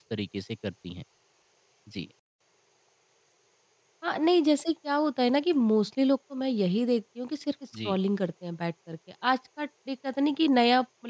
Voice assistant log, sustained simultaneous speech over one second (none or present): none